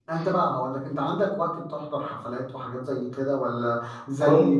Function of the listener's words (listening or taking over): listening